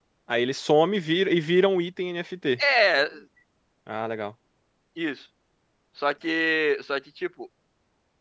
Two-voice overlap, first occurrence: none

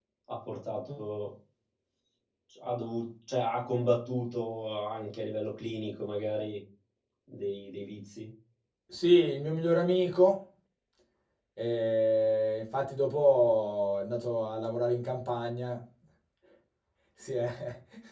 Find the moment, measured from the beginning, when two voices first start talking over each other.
none

